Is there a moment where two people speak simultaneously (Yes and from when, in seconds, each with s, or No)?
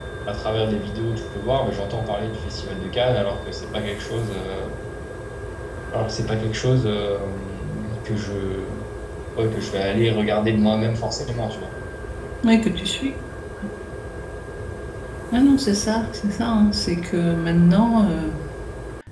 No